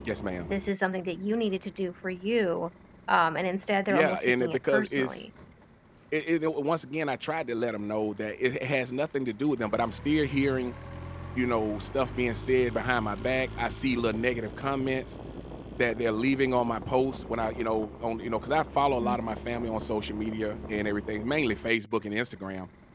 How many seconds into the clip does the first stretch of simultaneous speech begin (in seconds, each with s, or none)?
3.9 s